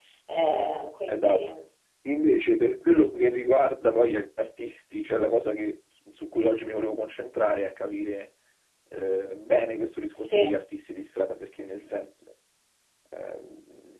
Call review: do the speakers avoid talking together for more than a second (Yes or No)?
Yes